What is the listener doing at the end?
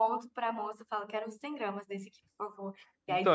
taking over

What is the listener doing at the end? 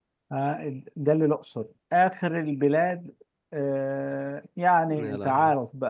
listening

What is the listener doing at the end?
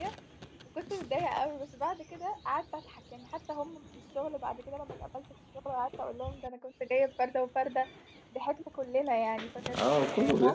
taking over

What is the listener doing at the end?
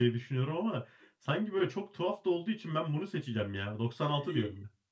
taking over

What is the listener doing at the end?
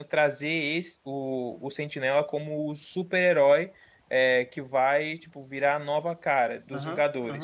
listening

